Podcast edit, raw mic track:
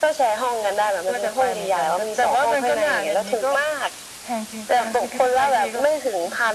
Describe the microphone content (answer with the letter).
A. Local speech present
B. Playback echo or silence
B